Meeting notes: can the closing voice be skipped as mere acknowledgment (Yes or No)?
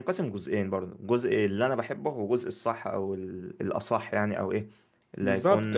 Yes